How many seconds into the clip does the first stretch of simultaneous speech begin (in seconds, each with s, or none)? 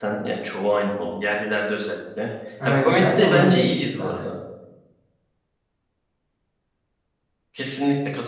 2.6 s